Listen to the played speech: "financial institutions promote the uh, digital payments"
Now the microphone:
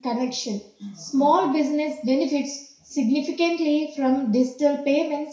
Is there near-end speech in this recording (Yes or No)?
Yes